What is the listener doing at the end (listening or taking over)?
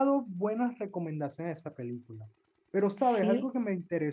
listening